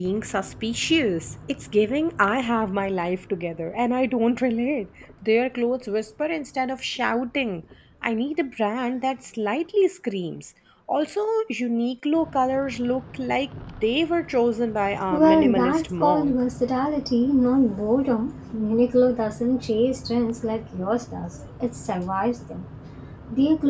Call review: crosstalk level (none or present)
present